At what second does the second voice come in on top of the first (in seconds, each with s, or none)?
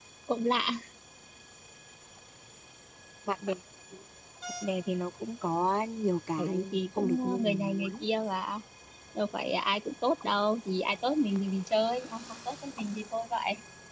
6.4 s